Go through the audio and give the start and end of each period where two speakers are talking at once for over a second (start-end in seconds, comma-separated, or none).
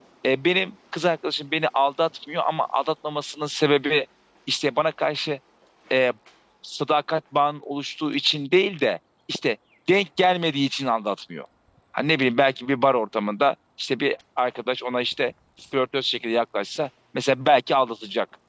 none